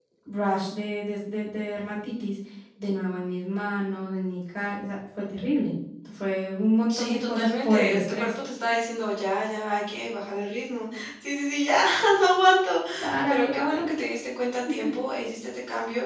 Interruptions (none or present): present